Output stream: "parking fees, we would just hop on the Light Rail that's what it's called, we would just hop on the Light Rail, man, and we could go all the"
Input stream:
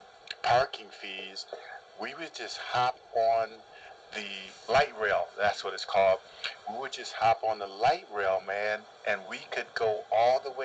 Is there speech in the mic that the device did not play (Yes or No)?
No